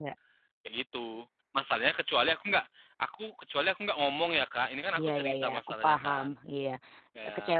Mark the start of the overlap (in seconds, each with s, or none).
5.0 s